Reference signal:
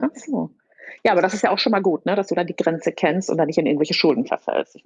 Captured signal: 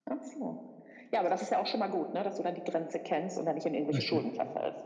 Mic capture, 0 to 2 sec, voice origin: echo only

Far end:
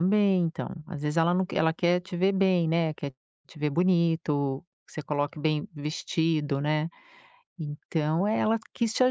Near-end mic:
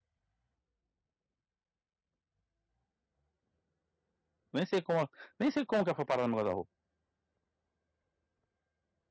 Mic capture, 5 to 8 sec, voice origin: user only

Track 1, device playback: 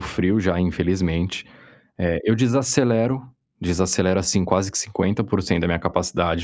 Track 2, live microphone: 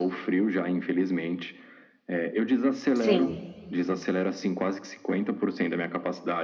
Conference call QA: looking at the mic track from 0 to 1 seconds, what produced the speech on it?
echo only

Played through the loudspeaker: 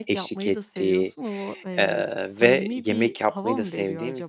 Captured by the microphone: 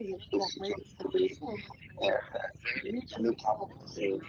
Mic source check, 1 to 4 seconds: echo only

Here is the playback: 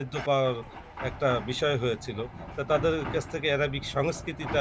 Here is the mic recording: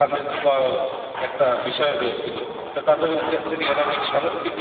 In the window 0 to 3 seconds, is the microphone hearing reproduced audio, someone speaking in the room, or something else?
echo only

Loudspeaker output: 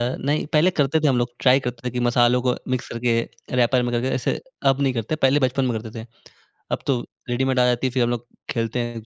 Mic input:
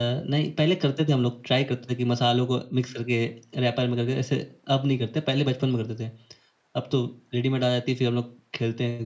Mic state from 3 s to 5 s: echo only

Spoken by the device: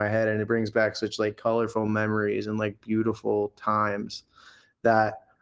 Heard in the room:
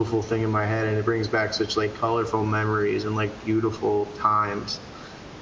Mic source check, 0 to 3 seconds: echo only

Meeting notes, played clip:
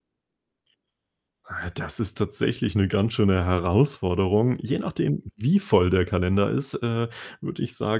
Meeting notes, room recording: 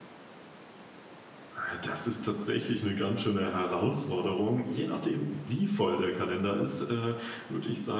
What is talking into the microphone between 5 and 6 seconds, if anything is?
echo only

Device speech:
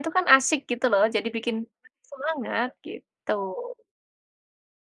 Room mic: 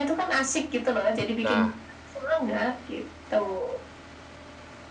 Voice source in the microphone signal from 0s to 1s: echo only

